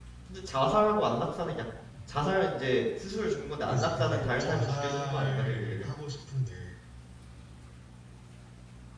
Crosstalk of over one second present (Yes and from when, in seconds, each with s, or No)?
Yes, from 3.7 s